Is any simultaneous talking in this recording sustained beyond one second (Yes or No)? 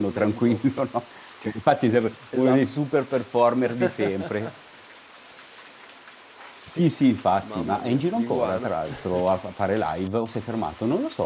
Yes